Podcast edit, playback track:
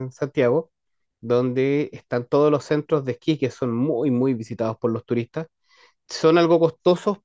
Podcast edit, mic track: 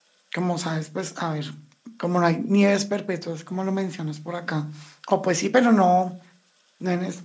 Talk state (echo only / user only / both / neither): user only